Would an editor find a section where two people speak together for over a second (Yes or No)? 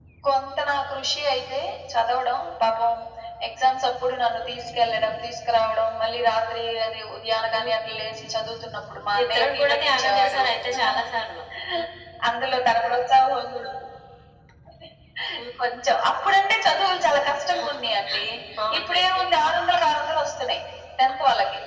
Yes